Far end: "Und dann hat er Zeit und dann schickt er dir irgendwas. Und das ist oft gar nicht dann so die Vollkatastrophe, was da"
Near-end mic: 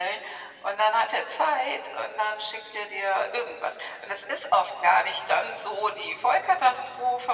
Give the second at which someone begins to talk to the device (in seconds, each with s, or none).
none